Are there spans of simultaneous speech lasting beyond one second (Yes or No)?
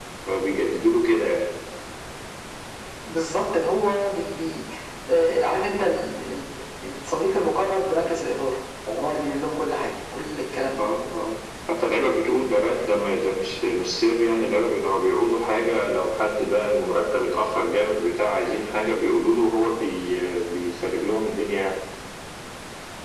No